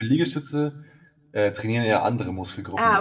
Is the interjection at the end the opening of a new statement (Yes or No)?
Yes